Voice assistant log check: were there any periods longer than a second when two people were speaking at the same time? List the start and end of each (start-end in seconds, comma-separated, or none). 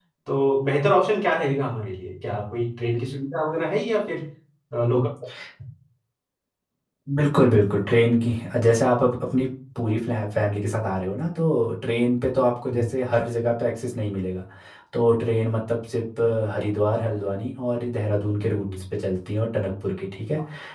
none